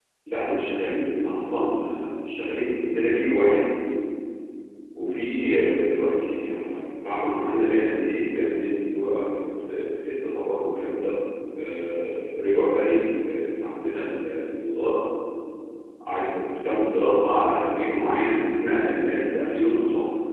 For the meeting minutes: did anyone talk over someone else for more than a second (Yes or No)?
No